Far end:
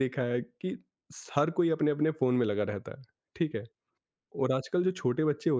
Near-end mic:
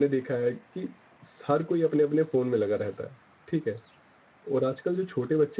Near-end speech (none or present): none